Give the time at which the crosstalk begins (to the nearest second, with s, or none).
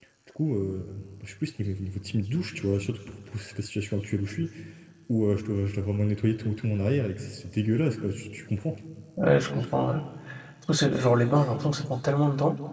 none